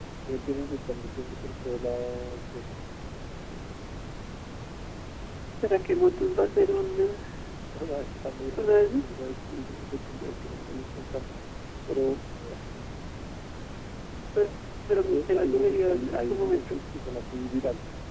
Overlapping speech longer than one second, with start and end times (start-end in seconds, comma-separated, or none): 15.1-16.8